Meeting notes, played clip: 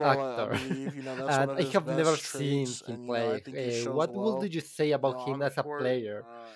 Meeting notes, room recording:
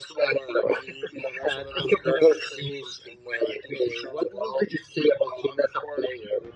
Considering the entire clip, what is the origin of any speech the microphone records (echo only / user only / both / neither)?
echo only